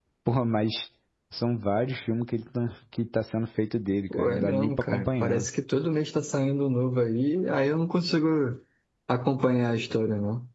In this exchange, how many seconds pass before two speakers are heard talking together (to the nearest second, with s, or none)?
4 s